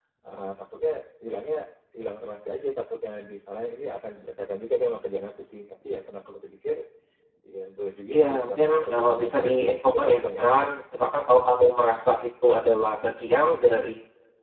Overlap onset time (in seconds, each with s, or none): 8.1 s